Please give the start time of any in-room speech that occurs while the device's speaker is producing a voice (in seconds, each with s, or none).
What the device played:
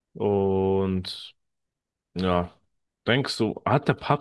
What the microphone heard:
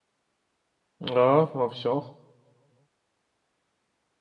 1.0 s